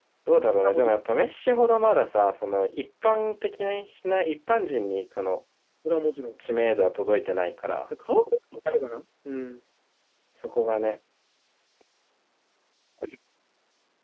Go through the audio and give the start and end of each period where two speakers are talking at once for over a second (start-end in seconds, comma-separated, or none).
none